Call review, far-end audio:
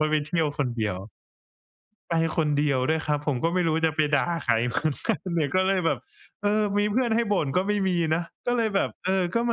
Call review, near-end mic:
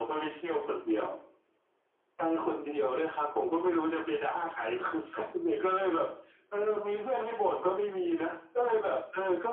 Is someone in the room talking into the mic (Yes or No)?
No